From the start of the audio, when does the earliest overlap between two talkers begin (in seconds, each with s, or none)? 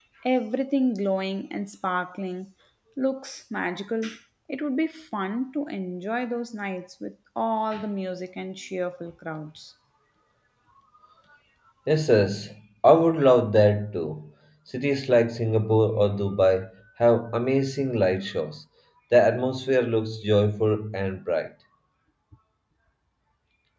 none